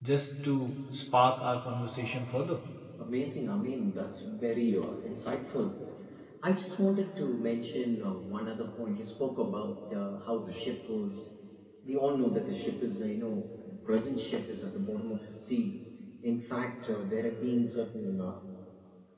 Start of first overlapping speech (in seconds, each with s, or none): none